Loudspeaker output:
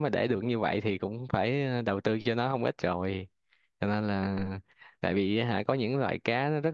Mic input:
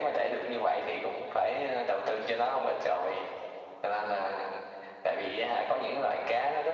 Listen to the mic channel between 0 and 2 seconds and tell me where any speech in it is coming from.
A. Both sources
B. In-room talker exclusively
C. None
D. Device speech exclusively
D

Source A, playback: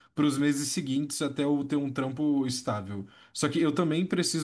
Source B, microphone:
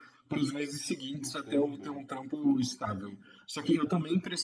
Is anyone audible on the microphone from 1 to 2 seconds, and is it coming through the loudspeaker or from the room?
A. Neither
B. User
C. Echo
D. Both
D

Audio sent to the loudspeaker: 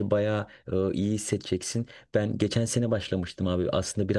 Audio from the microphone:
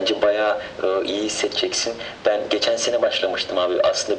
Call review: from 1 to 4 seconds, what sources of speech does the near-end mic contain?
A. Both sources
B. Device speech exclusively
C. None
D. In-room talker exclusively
B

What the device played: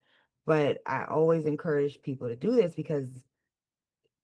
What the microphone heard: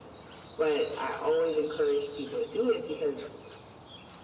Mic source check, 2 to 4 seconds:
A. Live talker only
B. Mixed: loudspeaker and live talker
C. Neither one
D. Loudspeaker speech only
D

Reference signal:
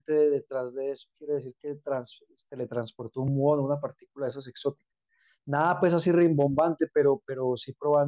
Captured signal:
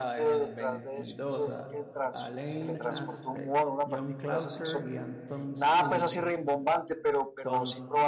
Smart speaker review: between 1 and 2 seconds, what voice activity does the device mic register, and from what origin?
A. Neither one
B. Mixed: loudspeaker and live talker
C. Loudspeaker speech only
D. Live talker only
B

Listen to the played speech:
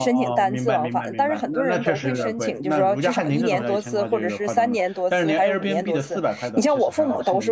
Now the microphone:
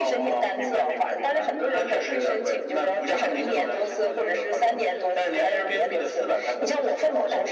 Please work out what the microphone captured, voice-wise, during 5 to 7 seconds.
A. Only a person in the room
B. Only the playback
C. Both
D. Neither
B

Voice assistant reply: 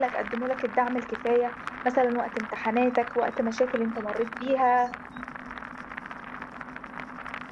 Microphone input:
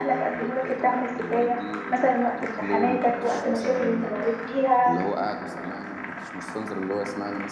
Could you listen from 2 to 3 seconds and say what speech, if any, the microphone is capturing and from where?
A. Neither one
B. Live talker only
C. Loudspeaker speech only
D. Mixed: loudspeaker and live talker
D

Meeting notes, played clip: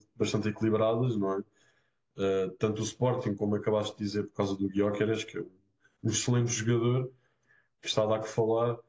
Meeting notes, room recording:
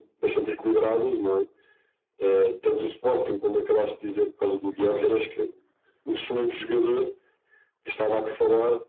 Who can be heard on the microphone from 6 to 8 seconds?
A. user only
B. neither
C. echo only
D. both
C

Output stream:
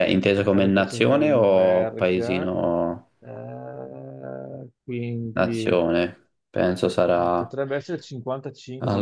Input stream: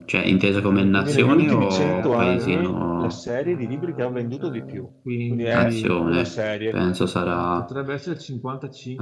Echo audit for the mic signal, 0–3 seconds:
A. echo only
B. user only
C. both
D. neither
C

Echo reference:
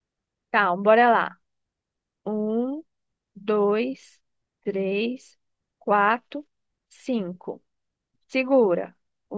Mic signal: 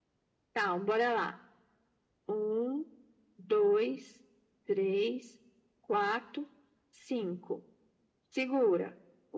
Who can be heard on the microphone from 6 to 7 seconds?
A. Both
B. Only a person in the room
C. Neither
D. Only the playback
D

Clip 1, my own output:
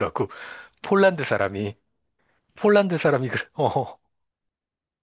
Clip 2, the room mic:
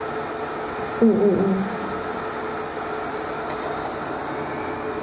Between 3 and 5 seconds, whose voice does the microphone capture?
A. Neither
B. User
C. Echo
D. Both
A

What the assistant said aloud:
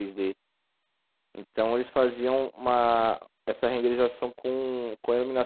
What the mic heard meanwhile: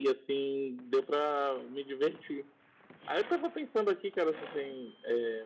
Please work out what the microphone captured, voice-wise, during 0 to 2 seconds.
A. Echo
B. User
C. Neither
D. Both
B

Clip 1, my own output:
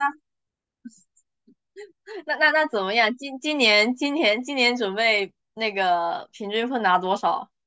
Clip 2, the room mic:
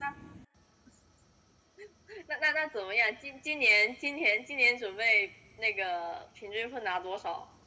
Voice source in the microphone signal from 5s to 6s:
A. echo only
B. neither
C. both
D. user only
A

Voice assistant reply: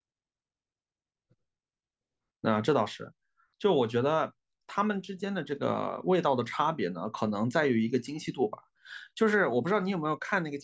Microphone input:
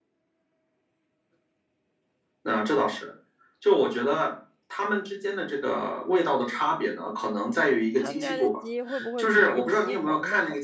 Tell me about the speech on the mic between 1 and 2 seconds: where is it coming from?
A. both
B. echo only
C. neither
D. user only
C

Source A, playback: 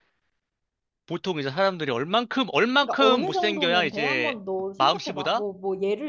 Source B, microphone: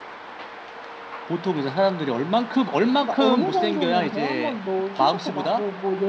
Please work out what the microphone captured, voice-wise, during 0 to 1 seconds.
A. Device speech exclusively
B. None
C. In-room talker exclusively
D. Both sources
B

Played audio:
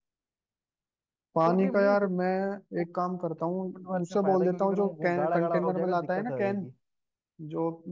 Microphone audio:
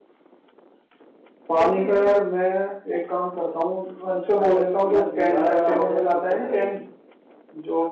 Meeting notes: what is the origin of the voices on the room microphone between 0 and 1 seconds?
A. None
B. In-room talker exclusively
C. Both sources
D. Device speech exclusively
A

